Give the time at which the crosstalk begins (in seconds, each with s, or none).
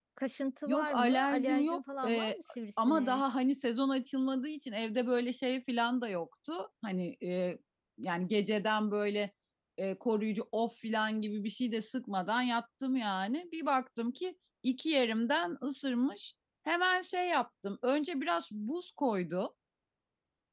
0.7 s